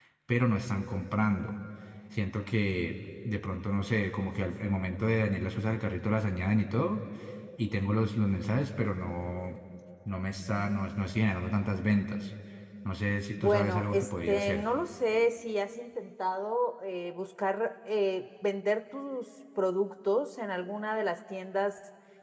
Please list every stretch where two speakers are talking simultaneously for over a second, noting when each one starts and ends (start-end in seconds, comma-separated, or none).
13.4-14.7